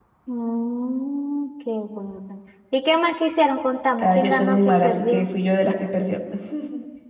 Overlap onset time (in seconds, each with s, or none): 4.0 s